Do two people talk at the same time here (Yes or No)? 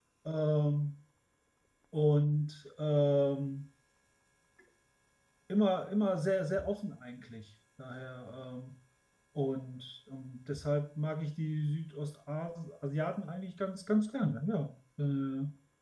No